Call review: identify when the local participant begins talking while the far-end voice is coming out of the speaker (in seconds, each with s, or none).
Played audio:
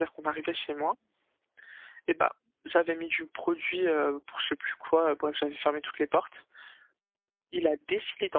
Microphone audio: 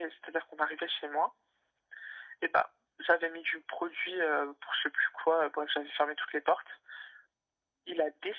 none